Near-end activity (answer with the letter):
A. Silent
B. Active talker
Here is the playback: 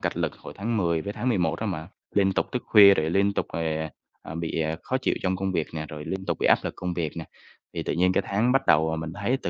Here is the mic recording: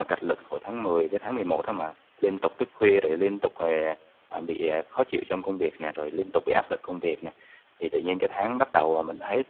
A